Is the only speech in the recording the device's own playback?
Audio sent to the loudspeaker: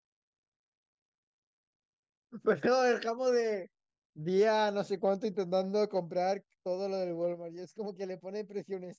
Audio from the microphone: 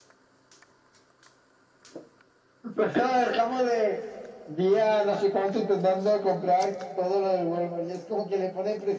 Yes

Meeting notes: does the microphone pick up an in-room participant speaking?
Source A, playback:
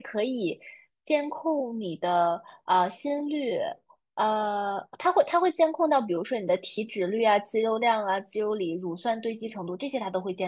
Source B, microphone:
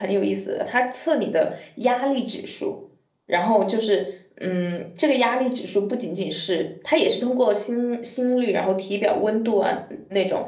Yes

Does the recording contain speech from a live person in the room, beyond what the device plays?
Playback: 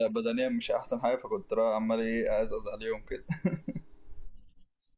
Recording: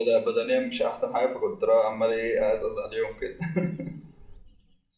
No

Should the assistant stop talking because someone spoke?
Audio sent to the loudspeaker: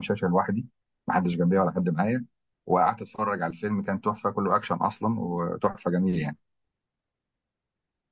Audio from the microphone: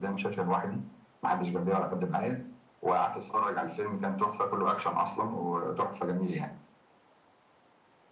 No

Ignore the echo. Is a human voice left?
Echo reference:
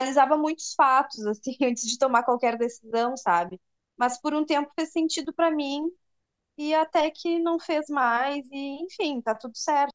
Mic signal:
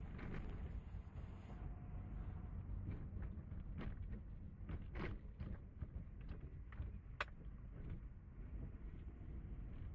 No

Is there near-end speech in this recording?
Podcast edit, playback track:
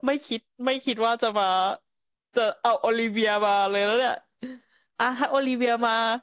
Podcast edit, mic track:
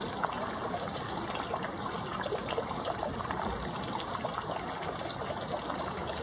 No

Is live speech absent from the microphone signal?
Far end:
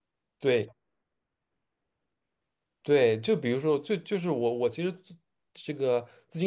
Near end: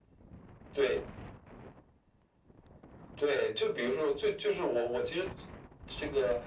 Yes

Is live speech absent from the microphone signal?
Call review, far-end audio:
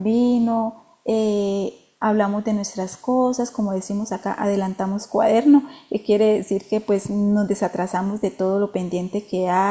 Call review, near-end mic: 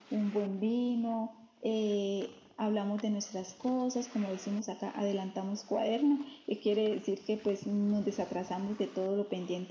Yes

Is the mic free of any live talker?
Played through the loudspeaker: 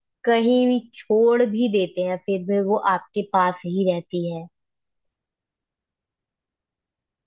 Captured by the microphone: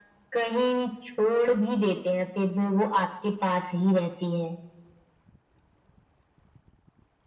Yes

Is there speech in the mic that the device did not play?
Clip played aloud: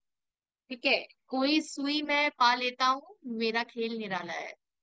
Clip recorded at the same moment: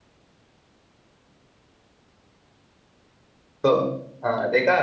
Yes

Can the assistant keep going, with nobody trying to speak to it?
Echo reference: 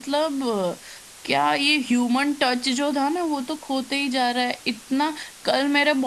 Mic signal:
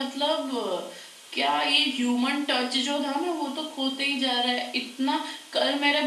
Yes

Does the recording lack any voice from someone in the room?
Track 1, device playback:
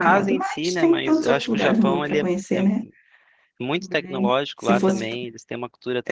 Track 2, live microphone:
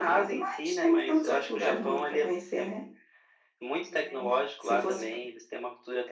Yes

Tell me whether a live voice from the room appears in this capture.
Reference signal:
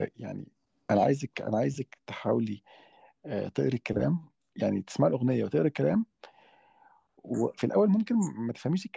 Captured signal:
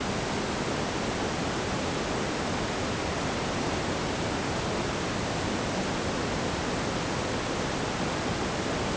No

